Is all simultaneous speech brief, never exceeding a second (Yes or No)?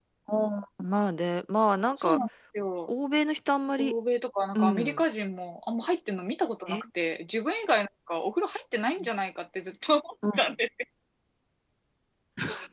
Yes